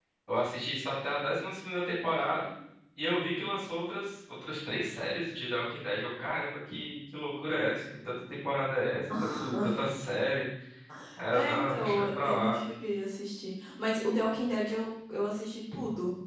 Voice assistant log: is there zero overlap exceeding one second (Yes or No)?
No